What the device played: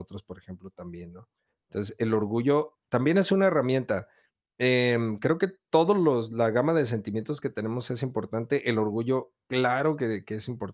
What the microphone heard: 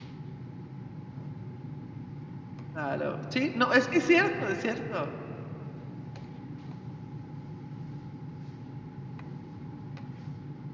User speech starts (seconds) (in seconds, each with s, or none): 2.7 s